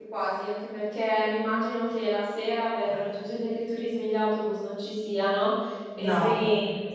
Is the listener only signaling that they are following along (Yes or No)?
Yes